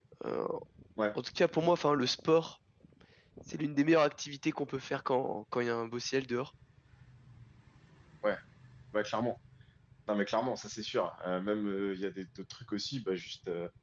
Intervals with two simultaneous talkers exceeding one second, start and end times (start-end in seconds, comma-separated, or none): none